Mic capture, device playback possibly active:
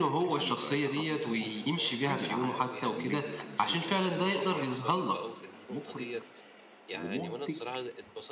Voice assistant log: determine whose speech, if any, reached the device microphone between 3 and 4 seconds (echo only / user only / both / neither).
both